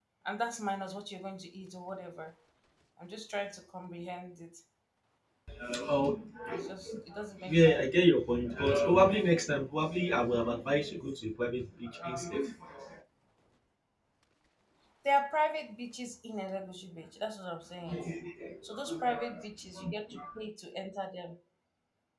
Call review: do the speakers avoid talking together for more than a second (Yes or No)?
Yes